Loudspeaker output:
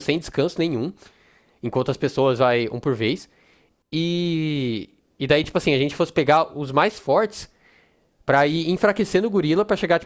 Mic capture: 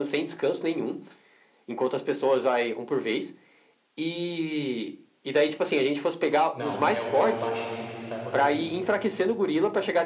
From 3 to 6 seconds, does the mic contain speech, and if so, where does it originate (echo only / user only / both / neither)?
echo only